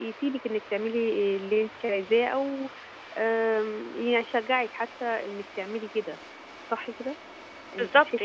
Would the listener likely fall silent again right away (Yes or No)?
No